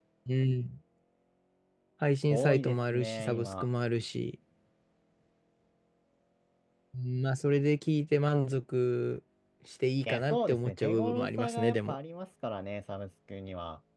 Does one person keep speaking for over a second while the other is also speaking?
Yes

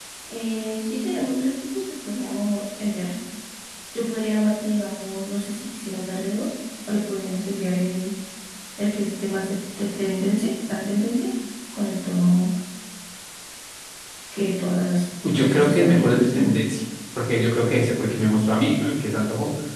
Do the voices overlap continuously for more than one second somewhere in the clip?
Yes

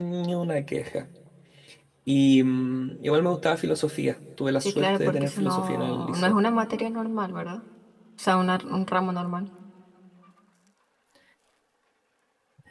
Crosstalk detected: Yes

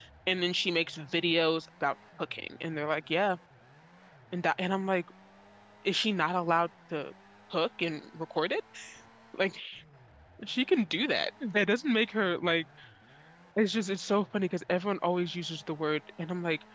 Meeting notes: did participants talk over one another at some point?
No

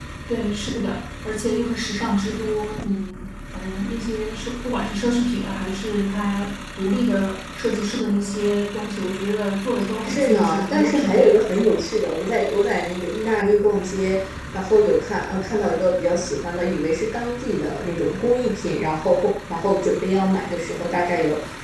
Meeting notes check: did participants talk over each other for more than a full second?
Yes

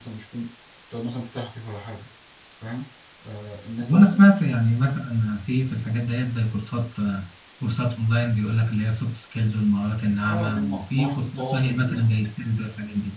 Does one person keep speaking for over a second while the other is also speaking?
Yes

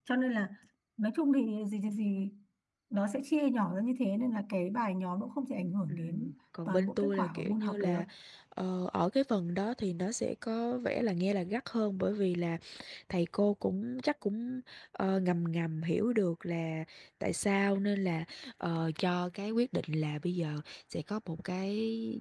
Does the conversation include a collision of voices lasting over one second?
Yes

